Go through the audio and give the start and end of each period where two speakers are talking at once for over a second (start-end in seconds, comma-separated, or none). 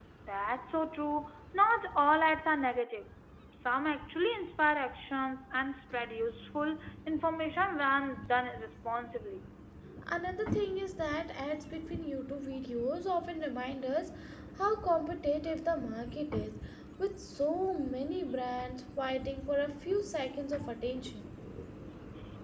none